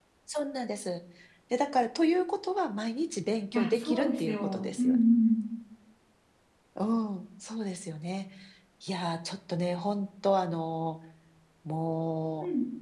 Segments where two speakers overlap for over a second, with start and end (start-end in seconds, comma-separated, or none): 3.5-4.9